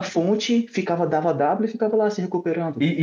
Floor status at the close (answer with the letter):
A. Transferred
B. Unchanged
A